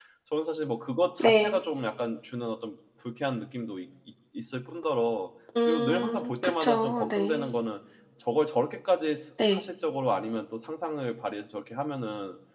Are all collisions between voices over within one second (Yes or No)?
No